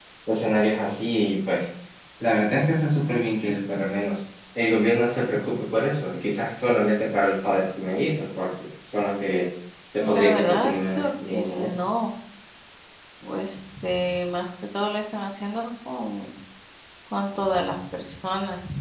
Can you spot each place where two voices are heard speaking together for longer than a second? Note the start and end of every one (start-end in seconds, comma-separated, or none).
10.0-11.8